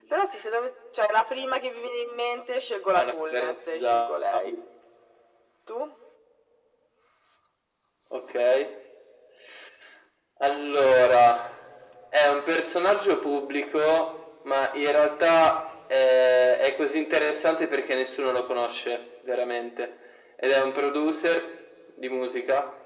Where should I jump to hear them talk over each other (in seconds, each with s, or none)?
3.0 s